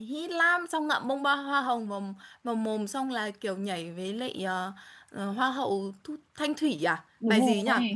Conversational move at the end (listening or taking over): taking over